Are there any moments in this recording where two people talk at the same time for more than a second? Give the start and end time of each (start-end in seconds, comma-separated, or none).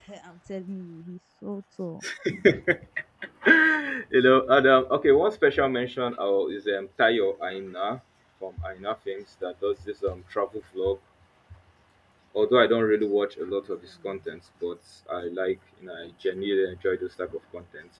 none